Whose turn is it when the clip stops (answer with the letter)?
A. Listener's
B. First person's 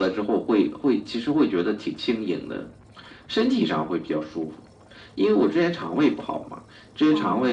B